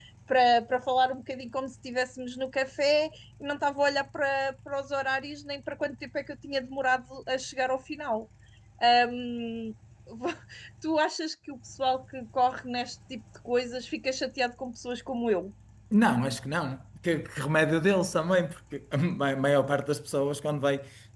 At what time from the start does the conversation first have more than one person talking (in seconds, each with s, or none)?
none